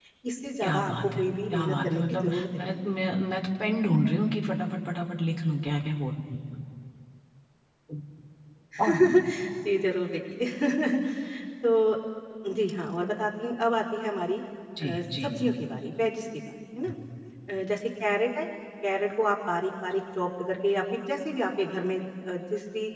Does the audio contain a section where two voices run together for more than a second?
Yes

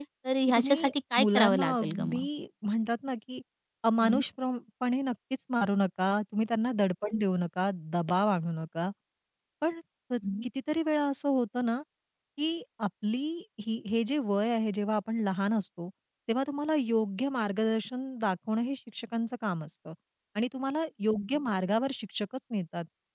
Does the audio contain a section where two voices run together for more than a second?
Yes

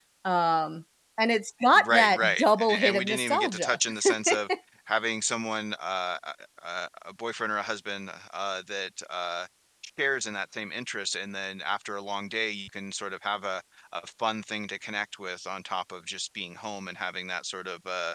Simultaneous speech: Yes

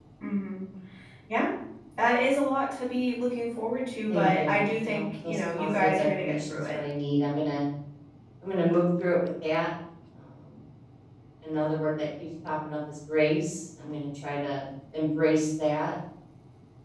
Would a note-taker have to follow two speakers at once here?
Yes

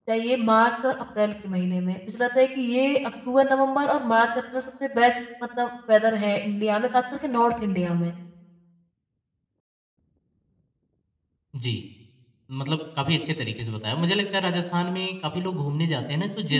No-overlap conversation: Yes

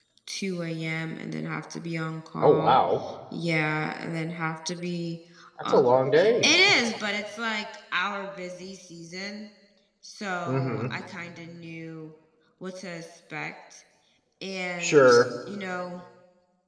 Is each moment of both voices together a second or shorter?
Yes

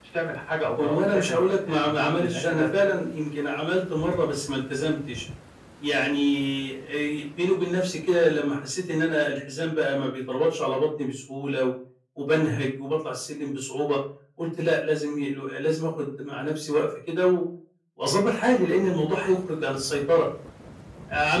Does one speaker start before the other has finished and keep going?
Yes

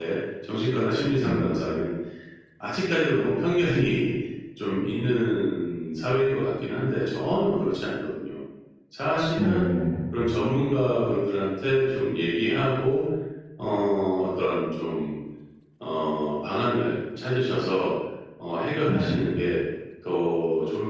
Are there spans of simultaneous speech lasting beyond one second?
No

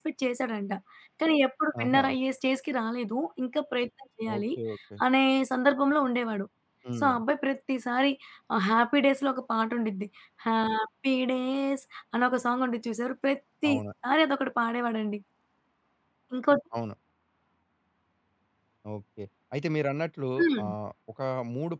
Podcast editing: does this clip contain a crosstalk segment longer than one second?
No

